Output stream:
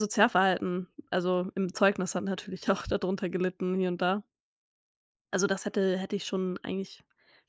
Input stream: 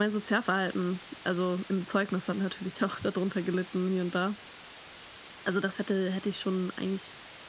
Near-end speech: none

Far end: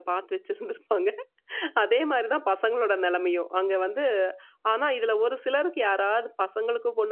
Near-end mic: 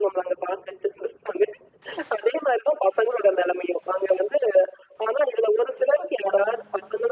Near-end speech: none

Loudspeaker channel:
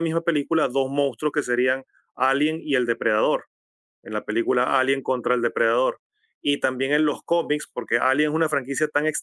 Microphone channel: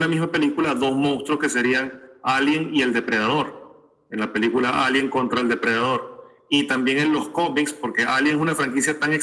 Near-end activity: none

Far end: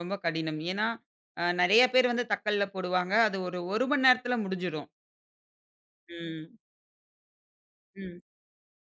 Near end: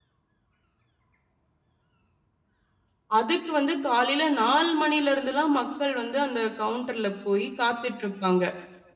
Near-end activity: present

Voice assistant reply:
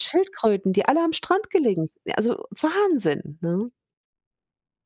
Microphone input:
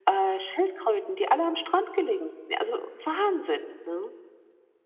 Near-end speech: none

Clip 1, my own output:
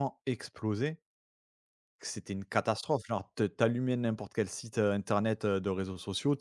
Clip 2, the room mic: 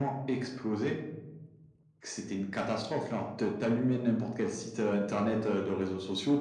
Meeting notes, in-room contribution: none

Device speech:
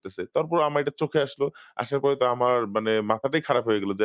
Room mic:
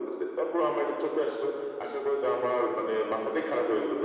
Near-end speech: none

